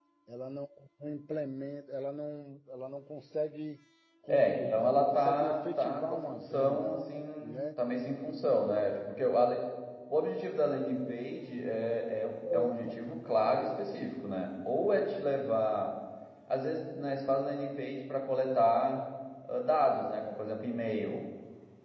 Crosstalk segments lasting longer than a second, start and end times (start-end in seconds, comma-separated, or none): 4.3-7.0